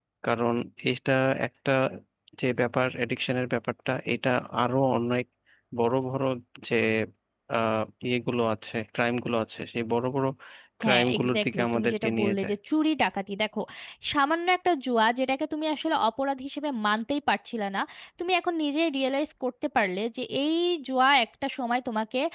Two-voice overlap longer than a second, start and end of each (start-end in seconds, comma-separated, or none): 10.9-12.5